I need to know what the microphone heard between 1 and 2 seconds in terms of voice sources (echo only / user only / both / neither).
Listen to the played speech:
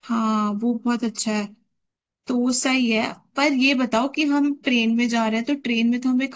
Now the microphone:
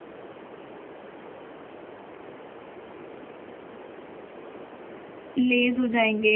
neither